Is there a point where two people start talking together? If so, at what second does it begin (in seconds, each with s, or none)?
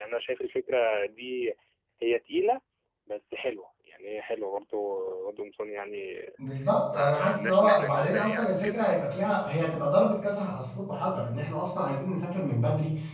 6.9 s